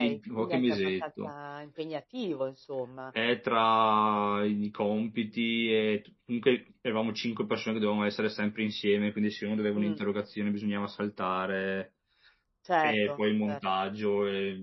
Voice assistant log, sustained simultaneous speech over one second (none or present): present